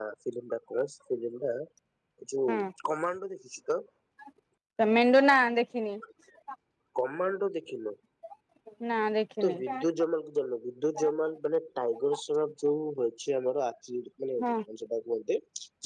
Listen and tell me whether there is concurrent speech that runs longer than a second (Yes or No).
No